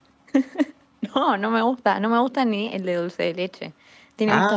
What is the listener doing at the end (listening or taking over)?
taking over